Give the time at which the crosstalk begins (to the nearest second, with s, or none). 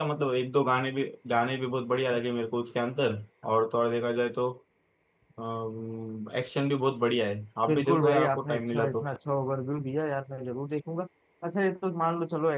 8 s